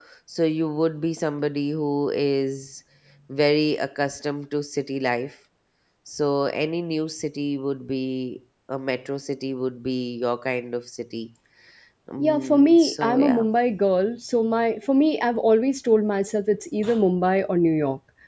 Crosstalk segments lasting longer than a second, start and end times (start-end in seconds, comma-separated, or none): 12.2-13.4